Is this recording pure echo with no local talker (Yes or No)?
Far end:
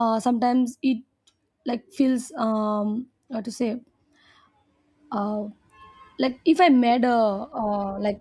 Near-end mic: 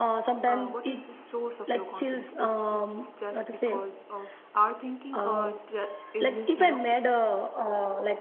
No